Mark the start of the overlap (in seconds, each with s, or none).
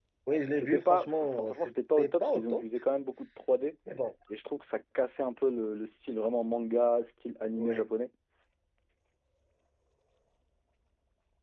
0.5 s